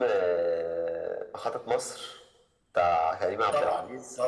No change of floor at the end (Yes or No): No